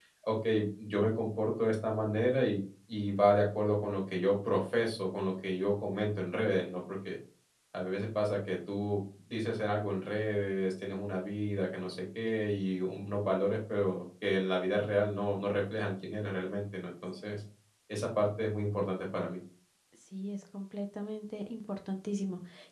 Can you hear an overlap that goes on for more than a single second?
No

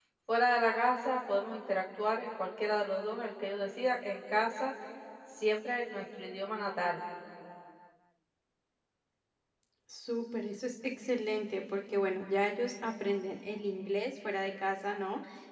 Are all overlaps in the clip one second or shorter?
Yes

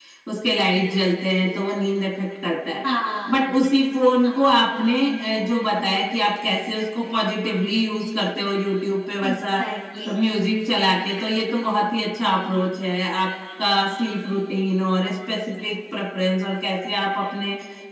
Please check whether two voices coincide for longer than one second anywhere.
No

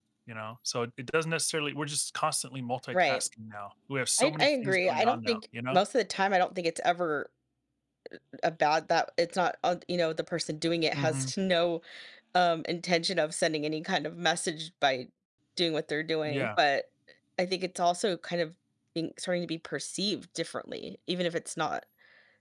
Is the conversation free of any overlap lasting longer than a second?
No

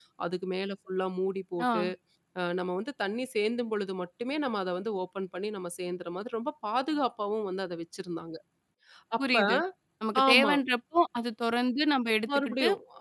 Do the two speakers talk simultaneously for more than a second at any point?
No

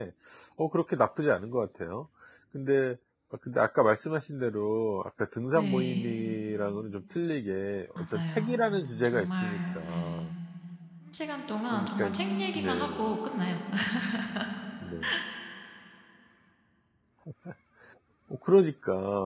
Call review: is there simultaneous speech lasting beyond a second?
Yes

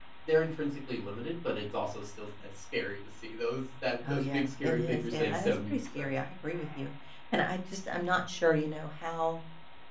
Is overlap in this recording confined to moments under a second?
No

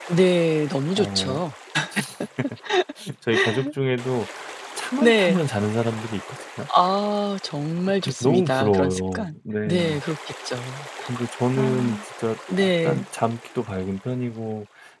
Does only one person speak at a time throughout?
No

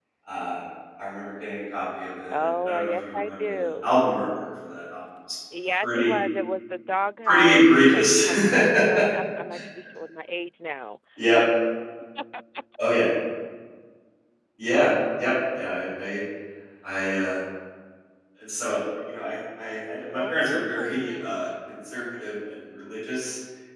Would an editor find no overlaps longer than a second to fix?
No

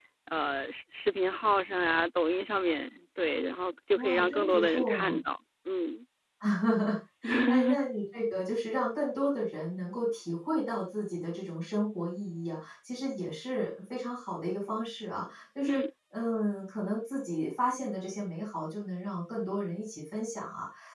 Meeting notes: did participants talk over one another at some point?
Yes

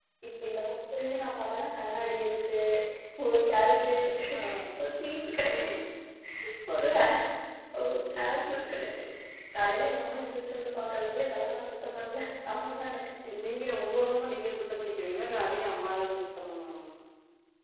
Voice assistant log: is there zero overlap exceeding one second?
Yes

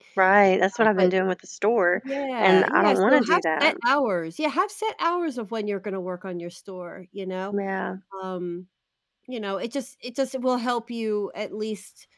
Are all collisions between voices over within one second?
No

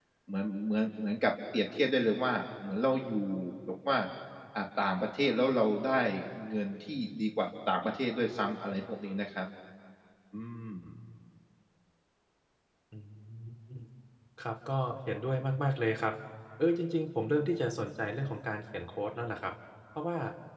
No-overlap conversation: Yes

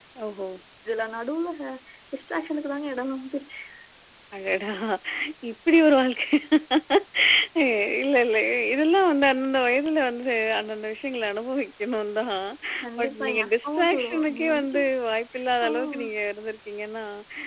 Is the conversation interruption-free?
No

